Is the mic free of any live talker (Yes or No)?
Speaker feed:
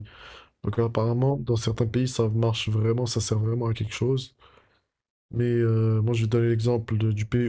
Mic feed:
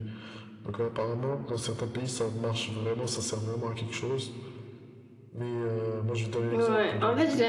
No